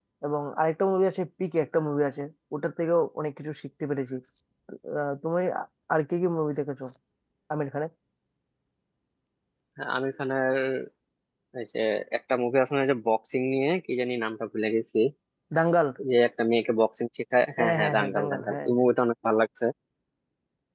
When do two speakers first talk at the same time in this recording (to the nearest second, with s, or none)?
18 s